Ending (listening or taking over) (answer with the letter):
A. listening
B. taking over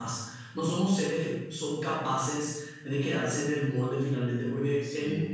A